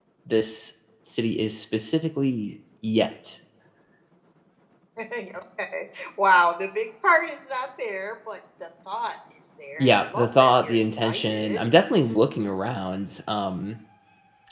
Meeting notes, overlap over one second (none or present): present